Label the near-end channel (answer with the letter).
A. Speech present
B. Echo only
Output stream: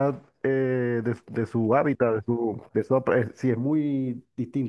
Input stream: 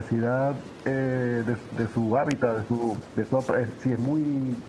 B